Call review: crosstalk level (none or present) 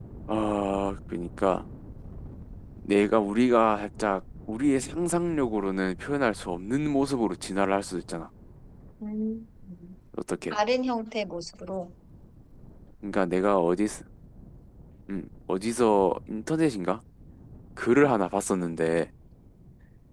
none